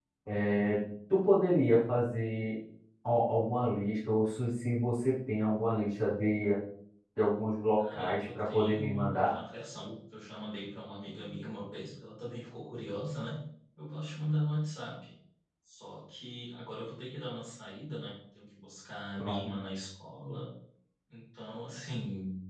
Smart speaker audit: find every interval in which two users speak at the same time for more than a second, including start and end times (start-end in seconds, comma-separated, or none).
7.8-9.4